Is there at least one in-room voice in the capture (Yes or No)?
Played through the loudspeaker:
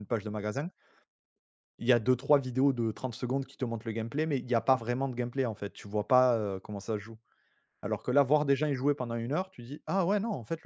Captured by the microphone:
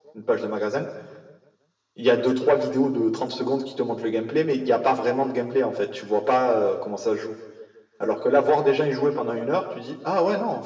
No